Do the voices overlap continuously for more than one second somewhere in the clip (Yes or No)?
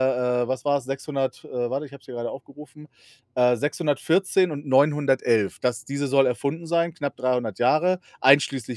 No